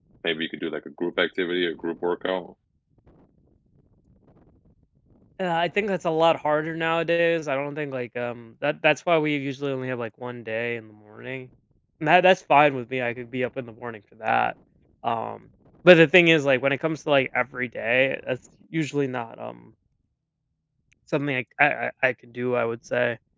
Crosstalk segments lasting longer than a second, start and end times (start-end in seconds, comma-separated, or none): none